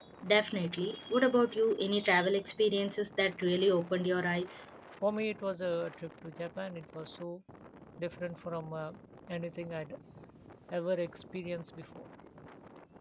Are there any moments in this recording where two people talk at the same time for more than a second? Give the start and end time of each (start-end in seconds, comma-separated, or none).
none